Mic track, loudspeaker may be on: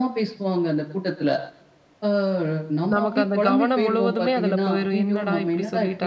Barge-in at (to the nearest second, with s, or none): 3 s